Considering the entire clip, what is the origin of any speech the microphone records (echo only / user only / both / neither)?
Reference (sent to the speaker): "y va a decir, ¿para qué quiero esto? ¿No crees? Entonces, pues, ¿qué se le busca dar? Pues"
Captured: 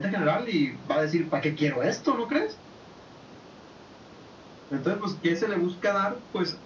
echo only